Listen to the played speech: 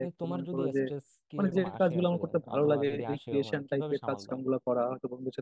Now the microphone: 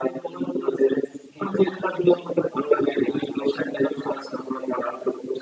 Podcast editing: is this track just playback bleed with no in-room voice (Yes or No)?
Yes